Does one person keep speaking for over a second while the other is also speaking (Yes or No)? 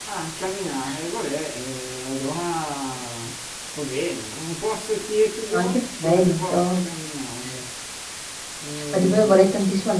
Yes